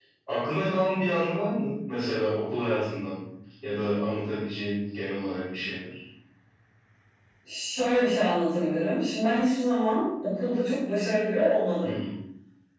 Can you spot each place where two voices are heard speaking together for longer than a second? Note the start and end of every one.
none

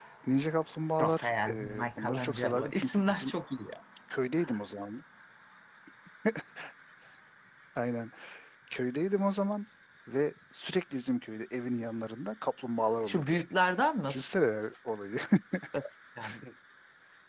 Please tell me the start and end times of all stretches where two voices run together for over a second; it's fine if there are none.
1.0-3.3

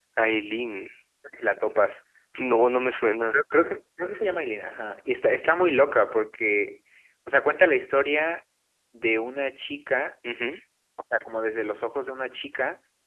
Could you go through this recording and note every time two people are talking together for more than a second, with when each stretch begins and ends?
none

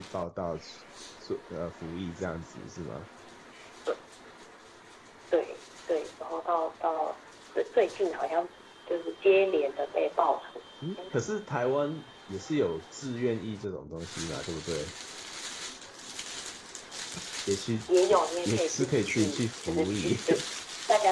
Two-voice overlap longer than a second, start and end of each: 18.1-20.1

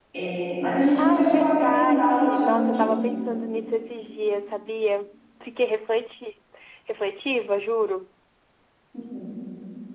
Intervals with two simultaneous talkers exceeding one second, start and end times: 0.9-2.9

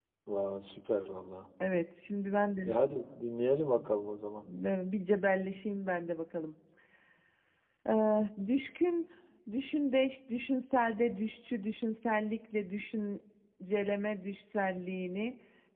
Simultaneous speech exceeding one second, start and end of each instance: none

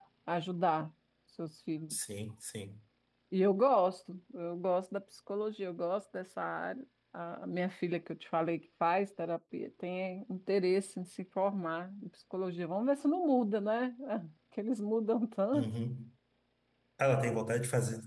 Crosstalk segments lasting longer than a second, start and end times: none

